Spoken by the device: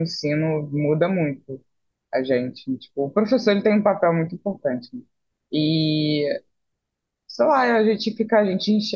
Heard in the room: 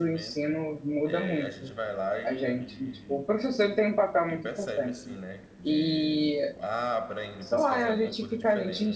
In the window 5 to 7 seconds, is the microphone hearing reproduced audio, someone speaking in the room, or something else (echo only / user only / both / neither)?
both